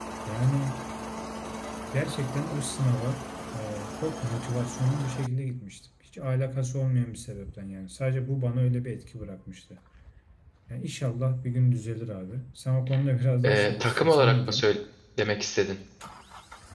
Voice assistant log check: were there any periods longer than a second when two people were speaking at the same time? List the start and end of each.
13.4-14.7

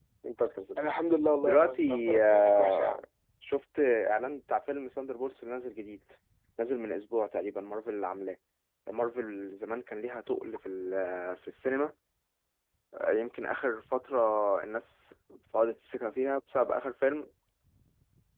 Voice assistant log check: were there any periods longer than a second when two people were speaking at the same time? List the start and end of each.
1.4-3.0

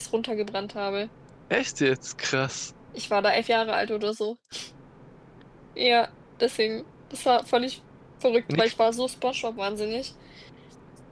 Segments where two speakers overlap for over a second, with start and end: none

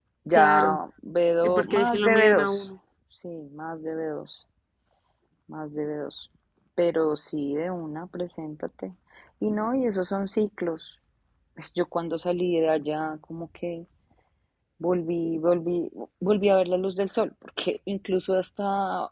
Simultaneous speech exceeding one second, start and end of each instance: 1.4-2.7

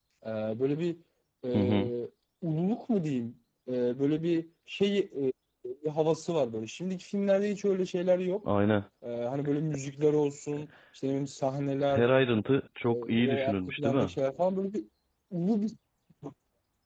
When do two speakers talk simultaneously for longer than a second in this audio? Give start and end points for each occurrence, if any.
12.8-14.1

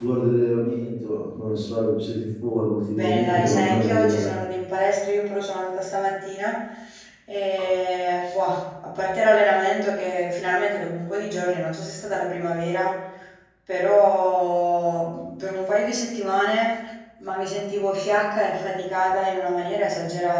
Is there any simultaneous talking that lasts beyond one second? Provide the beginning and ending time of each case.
2.9-4.3

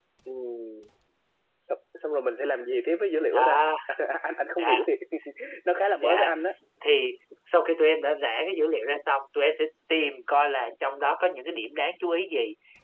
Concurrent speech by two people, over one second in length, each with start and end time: none

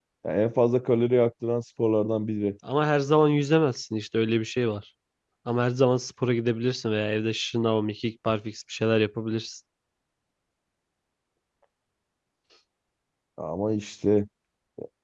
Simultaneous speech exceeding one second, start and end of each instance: none

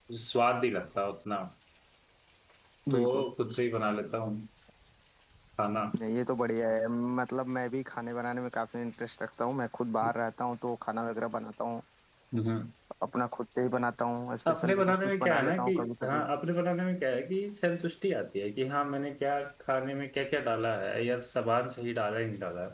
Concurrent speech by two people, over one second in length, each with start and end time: 14.5-16.2

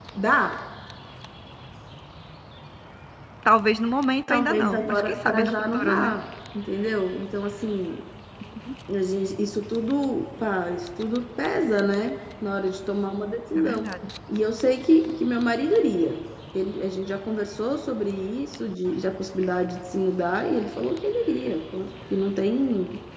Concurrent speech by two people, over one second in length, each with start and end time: 4.3-6.1

